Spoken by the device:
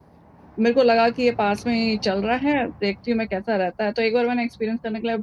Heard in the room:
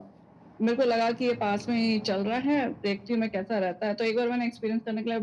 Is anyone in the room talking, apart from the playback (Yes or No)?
No